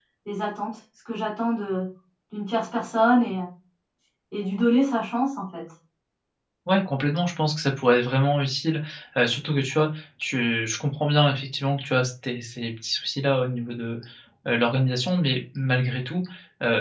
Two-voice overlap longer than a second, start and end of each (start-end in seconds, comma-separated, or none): none